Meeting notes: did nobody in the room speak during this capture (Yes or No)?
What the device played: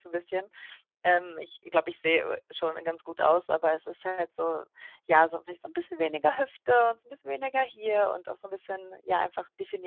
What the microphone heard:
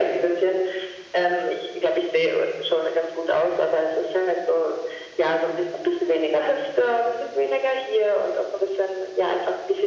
Yes